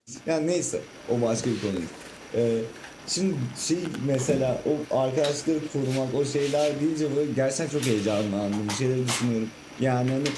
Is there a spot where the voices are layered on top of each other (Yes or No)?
No